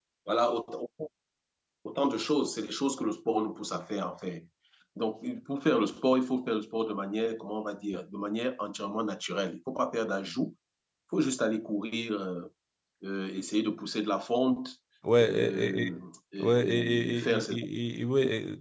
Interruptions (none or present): present